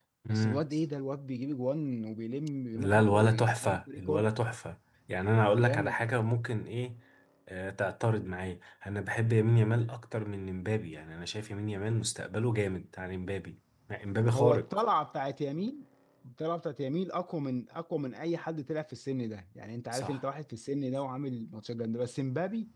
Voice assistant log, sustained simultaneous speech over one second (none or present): present